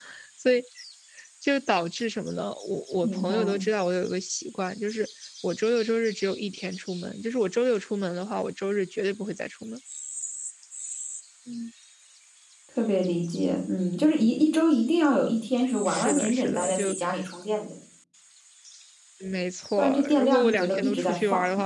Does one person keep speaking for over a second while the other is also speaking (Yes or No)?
Yes